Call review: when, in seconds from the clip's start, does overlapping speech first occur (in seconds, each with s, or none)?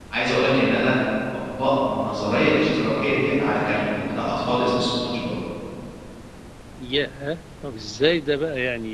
none